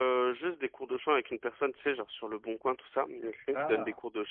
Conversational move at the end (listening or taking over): listening